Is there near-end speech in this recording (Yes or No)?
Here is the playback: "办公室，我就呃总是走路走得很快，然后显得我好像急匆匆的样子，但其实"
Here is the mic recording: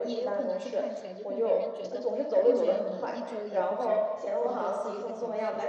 Yes